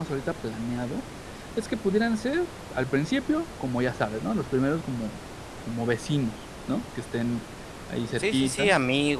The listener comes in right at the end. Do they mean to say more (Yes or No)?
Yes